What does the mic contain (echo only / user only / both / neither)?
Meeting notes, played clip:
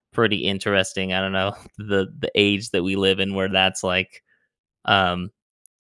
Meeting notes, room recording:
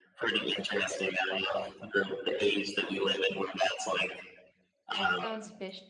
both